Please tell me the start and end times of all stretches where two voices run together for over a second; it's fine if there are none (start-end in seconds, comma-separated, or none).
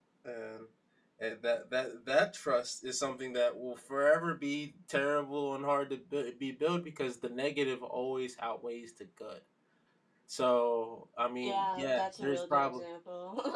11.4-12.8